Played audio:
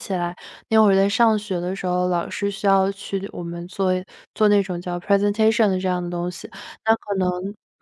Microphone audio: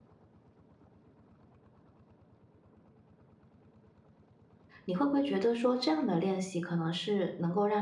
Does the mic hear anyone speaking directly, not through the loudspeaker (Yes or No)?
Yes